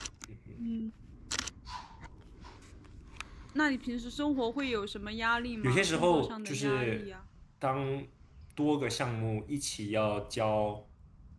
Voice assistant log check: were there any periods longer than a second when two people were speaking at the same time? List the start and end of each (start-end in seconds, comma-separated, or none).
5.6-7.1